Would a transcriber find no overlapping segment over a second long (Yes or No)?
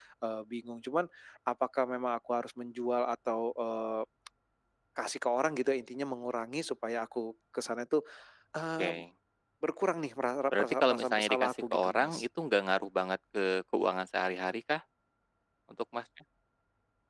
No